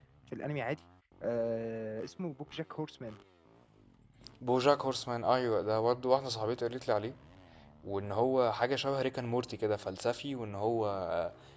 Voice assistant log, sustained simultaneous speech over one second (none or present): none